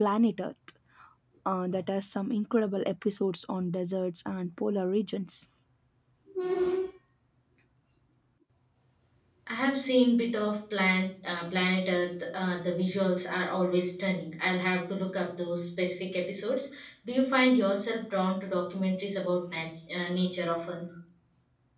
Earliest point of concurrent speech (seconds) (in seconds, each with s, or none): none